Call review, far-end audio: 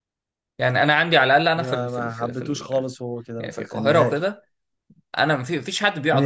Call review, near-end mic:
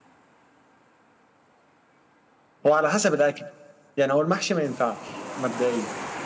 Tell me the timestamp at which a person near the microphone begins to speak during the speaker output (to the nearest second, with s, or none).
3 s